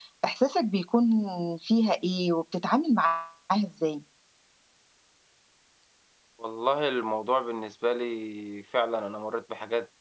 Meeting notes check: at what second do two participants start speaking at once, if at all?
none

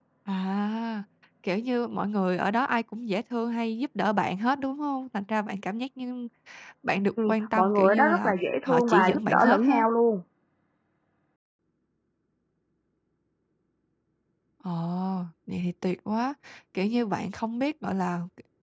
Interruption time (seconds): 7.3 s

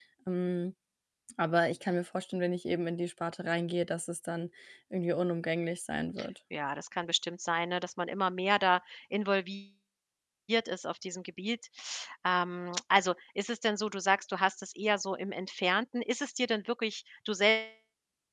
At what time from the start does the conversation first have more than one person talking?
none

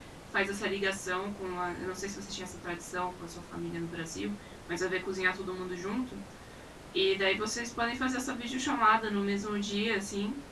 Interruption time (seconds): none

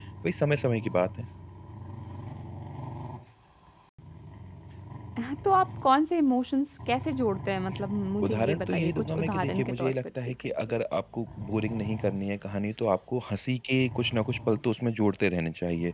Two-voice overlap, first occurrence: 8.2 s

